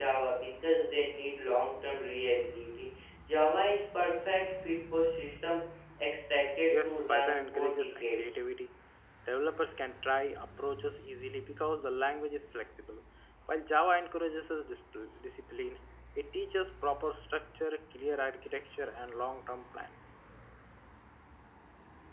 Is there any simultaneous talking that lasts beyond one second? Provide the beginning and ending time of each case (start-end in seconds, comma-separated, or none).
6.7-8.3